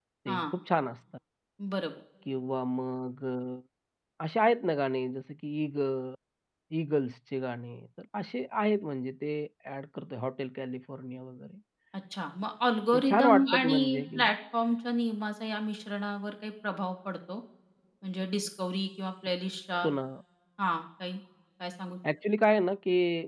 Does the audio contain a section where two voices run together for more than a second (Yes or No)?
Yes